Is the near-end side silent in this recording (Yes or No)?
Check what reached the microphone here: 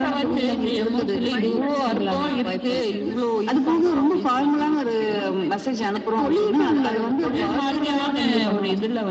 No